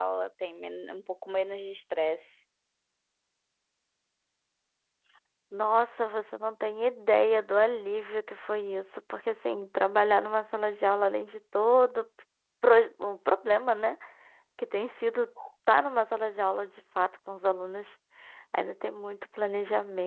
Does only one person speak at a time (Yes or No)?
Yes